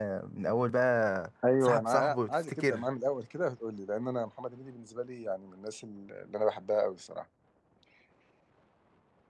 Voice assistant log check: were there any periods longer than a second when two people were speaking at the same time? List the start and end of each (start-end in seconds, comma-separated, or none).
1.6-2.9